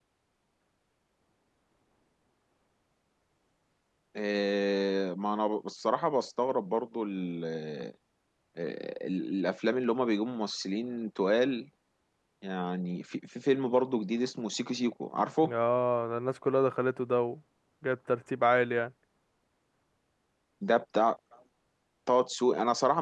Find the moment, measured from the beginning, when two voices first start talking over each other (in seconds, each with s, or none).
none